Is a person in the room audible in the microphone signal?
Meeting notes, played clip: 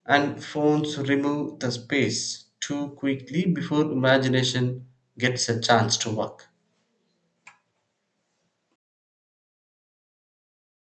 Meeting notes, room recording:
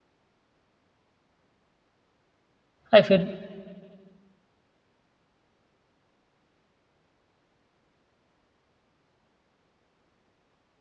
Yes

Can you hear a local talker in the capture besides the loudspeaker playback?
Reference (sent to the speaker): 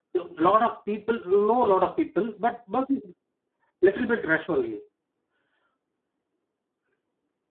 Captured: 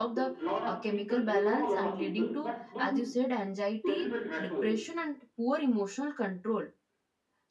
Yes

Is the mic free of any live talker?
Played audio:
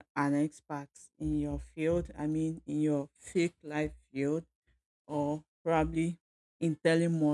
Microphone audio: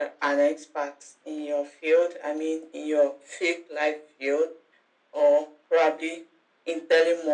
Yes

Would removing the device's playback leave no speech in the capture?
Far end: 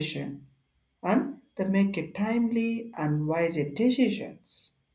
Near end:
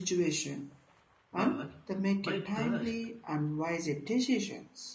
No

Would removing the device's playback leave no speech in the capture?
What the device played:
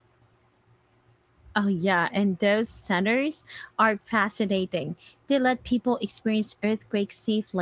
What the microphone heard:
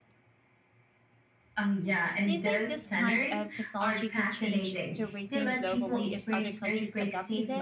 No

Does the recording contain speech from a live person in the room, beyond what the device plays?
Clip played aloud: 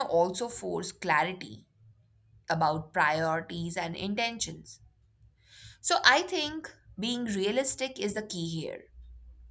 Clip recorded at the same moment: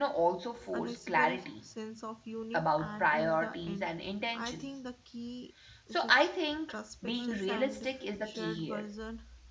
Yes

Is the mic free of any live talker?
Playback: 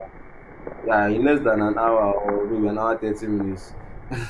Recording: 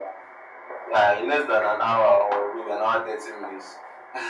Yes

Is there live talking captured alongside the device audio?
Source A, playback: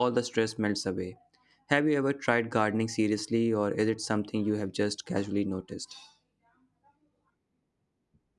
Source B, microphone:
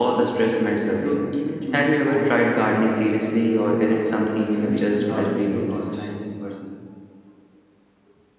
Yes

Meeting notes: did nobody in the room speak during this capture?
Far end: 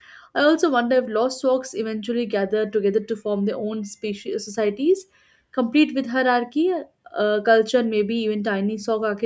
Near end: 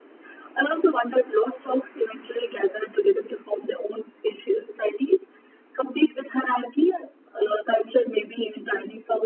Yes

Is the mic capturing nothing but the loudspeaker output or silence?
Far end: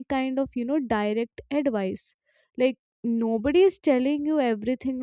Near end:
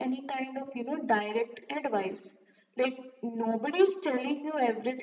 Yes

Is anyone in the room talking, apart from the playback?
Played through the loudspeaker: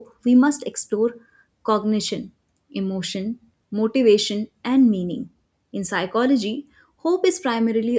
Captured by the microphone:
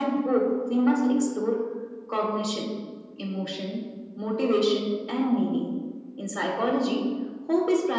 No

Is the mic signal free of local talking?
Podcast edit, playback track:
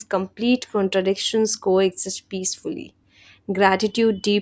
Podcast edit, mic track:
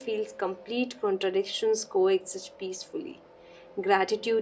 Yes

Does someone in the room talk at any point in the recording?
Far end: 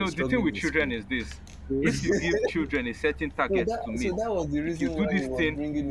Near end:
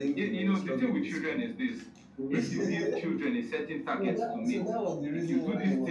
No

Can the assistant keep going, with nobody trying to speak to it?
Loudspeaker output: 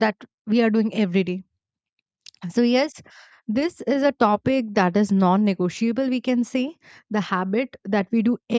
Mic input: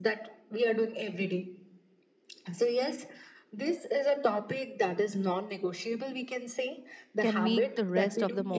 No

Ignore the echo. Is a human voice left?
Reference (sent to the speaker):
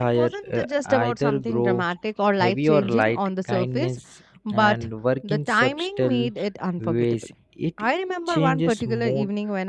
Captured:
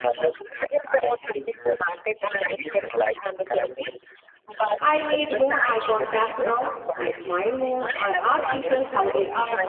Yes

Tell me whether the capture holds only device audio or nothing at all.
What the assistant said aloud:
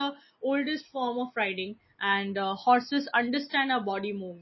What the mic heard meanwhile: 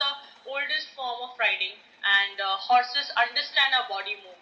Yes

